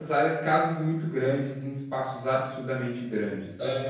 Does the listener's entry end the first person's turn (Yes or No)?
Yes